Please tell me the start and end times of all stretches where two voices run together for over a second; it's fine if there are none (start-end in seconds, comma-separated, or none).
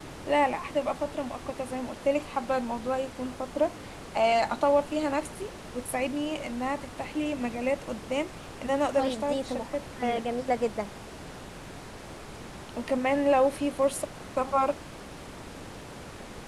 9.0-10.2